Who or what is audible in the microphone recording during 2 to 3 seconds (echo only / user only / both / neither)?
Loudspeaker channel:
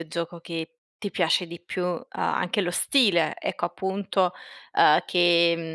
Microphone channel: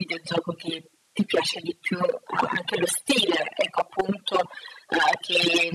echo only